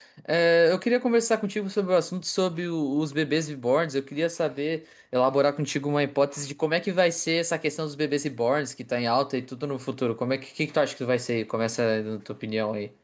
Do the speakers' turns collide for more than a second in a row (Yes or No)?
No